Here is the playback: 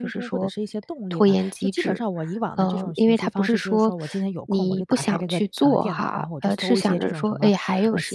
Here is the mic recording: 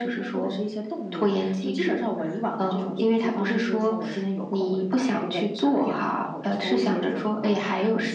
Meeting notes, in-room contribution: none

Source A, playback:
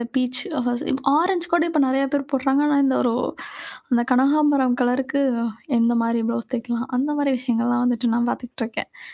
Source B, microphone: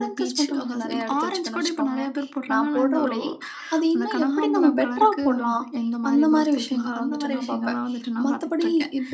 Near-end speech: present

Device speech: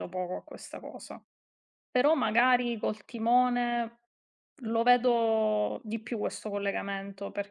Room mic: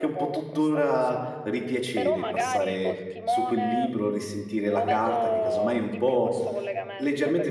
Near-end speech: present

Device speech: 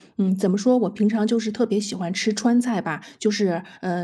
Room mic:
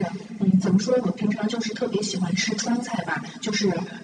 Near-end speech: none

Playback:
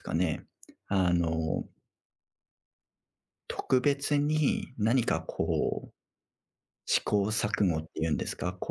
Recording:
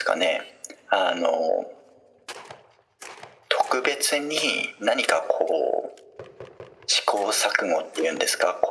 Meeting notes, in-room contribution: none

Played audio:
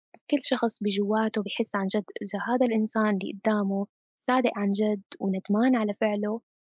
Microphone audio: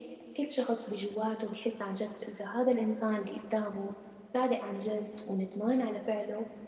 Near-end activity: none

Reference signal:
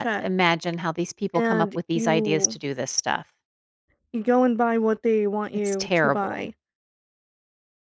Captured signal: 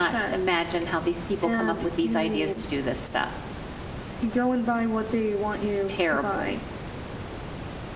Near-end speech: none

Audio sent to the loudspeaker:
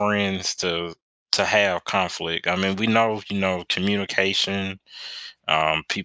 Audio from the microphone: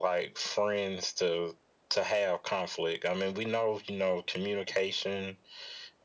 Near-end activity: none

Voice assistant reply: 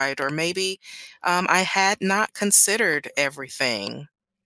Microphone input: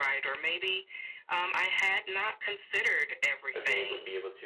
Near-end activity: present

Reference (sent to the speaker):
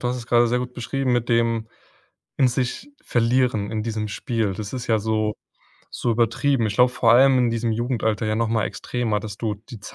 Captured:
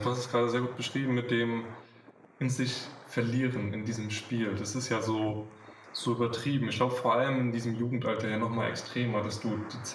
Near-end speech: present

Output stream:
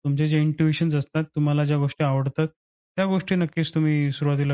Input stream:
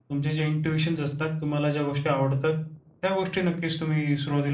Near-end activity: none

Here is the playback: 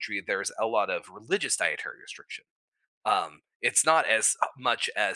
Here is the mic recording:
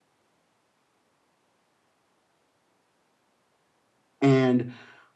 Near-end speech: present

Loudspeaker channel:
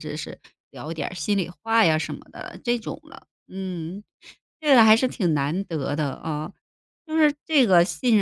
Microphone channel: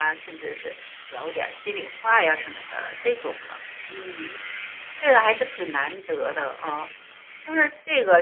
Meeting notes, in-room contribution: none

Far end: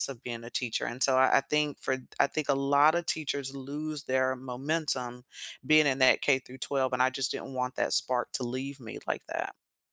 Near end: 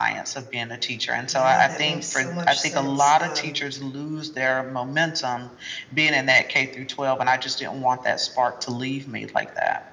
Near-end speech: present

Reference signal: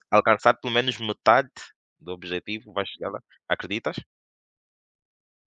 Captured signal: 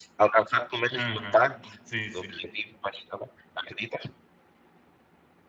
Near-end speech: present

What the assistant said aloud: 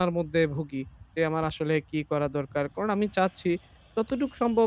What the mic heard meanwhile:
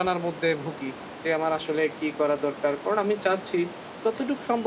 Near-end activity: none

